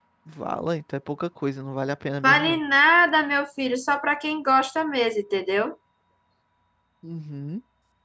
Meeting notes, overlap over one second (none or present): none